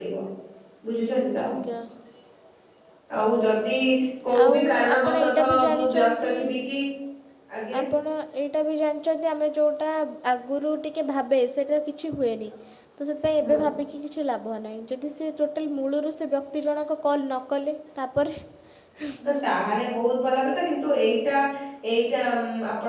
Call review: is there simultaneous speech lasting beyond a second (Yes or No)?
Yes